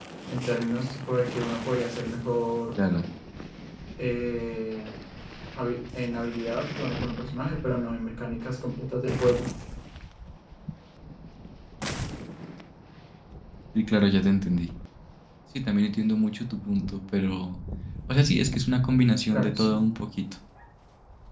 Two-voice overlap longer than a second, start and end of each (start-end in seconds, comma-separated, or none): none